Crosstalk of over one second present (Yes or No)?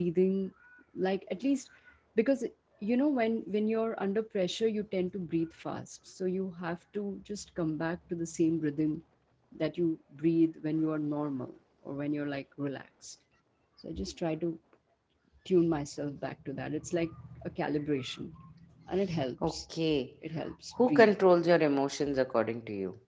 No